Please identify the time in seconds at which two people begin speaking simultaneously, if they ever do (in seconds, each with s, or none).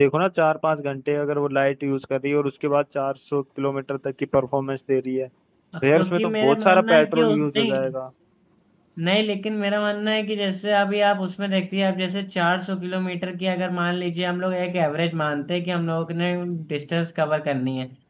5.7 s